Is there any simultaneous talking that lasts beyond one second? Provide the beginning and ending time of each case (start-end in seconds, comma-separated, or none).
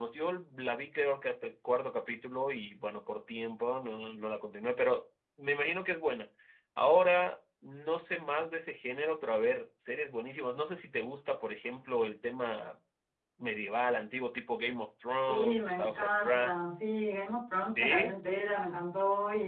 15.3-16.6